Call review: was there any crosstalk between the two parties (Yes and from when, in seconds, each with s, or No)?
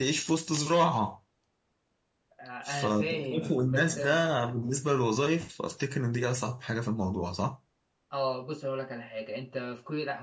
Yes, from 2.6 s